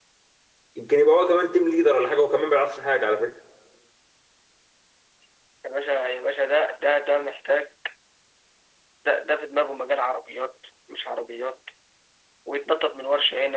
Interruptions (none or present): none